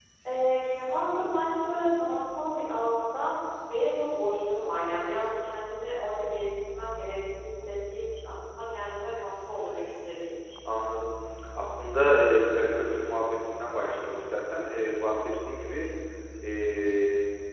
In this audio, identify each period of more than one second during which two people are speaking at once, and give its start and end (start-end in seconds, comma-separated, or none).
none